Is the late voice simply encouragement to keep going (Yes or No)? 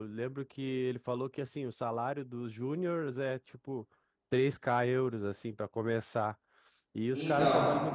Yes